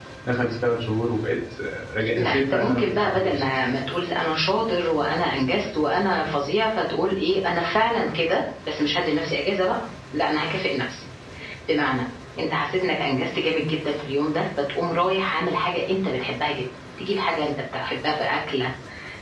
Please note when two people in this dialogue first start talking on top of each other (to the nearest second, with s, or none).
2 s